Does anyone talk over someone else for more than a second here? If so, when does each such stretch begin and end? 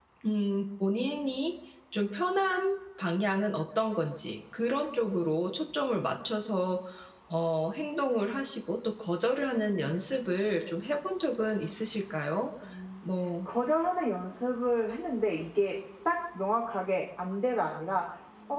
none

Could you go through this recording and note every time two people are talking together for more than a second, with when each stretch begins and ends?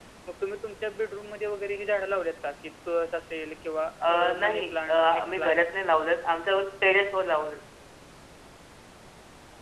4.1-5.6

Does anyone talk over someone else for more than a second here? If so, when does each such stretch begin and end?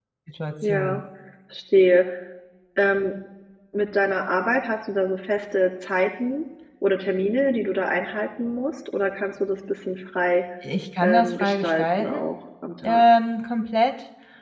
11.0-12.3

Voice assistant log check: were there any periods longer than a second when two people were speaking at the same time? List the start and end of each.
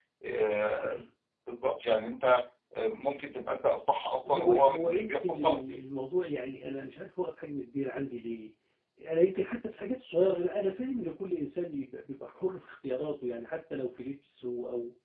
4.3-5.6

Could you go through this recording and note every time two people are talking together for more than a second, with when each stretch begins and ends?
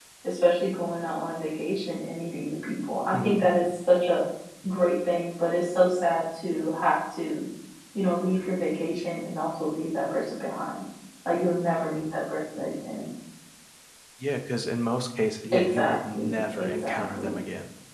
15.5-17.4

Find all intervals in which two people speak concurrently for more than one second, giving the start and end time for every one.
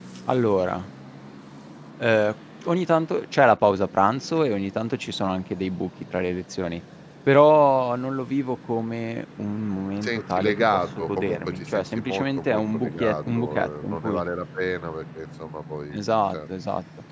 10.0-14.2

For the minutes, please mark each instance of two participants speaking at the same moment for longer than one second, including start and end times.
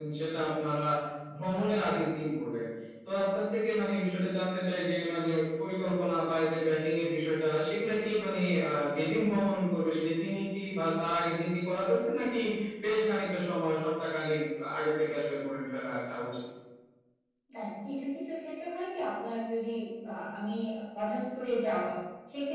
none

